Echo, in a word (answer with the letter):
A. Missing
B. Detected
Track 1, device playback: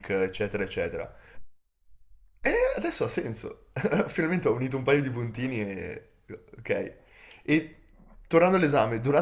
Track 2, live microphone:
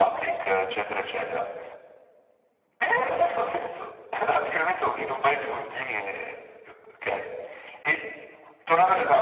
B